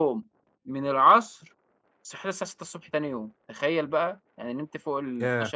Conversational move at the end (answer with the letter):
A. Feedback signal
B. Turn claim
A